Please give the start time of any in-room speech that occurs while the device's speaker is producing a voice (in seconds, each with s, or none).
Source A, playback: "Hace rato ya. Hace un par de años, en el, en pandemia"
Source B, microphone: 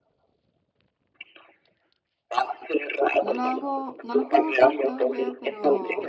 3.2 s